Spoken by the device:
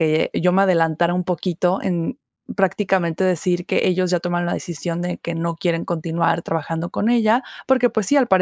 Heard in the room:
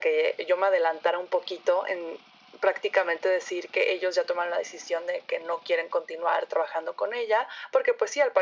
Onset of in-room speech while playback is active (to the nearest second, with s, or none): none